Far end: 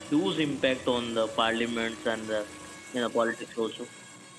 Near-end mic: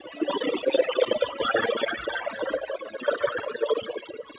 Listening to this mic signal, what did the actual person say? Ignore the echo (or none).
none